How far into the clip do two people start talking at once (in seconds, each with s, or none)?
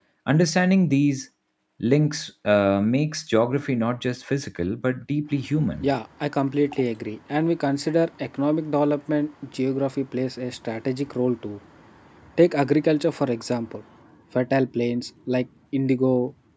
none